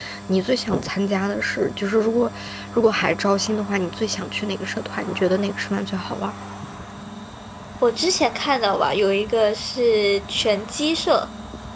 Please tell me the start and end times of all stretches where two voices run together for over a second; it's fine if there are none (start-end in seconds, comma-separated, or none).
none